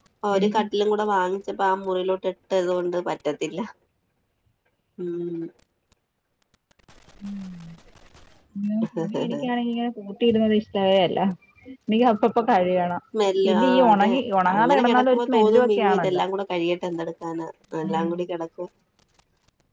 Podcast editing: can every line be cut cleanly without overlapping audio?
No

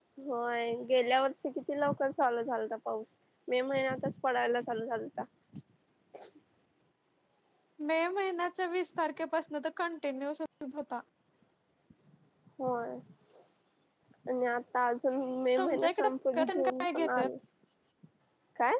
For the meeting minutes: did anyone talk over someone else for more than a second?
Yes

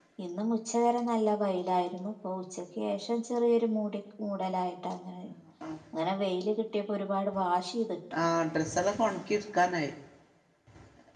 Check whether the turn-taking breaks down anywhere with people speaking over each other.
No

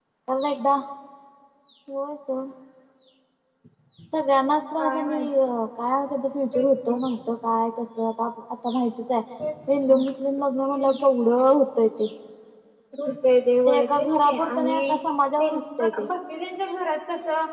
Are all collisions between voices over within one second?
No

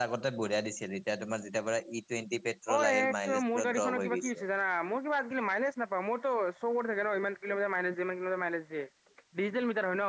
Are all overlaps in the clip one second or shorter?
No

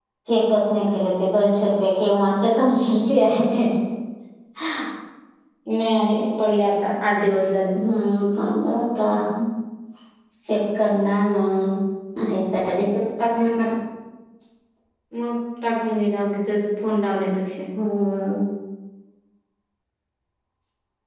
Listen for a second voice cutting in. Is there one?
No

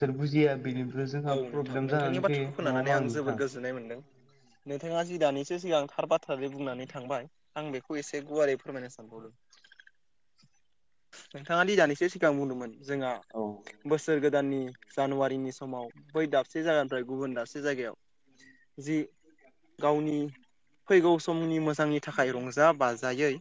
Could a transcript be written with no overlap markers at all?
No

